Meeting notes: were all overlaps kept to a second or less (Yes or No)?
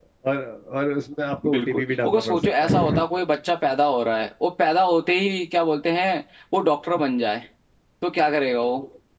No